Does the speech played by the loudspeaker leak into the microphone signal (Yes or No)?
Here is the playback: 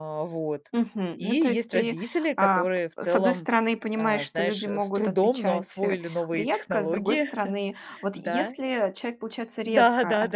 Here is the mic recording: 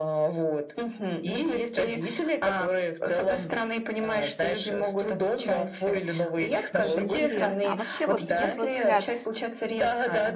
Yes